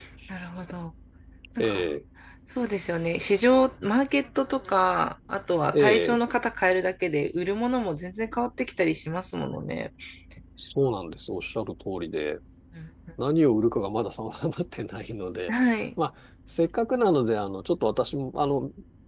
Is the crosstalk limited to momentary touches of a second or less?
Yes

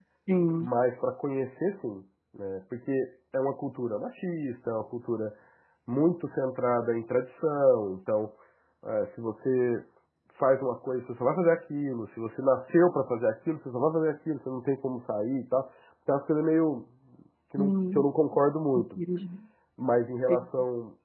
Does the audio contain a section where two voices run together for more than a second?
No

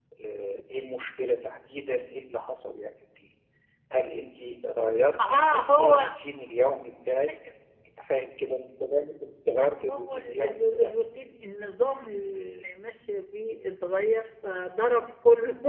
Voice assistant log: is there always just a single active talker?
No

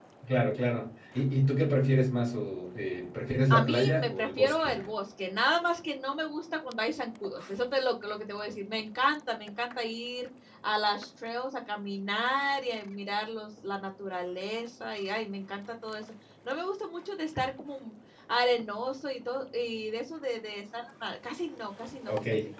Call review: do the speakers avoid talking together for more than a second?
No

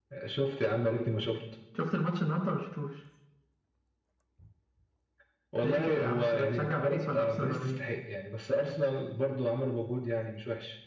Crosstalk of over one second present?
Yes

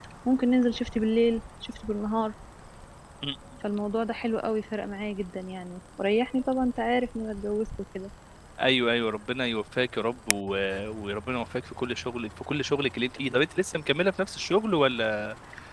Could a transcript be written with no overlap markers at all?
Yes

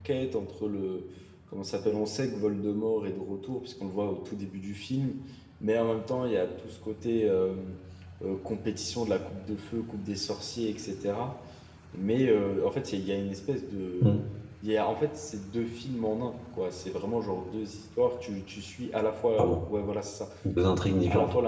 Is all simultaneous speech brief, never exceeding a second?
Yes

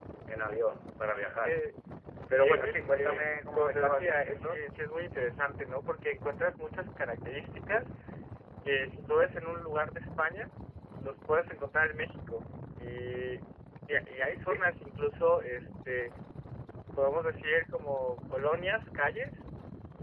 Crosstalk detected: Yes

